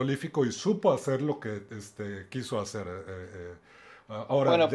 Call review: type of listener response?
taking over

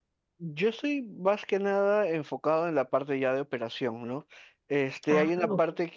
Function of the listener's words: listening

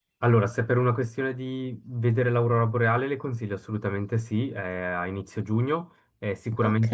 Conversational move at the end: listening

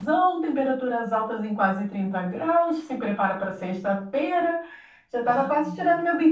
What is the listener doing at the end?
listening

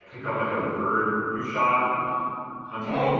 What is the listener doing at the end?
taking over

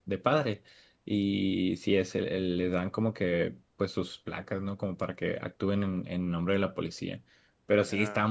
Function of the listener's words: listening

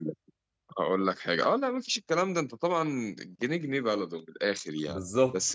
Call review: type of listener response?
listening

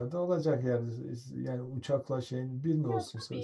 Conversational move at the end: taking over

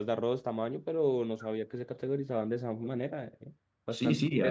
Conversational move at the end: taking over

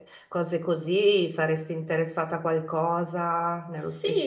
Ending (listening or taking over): taking over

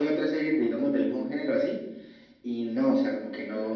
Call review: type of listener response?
listening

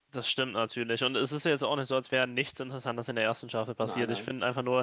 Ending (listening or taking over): listening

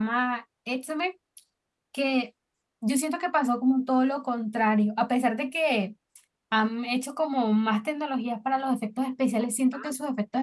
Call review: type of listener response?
listening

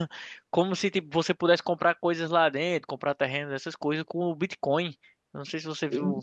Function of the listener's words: listening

